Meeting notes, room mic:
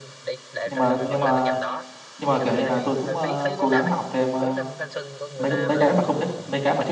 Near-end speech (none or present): present